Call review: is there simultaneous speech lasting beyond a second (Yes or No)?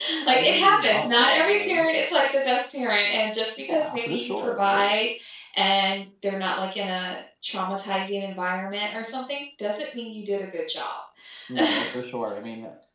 Yes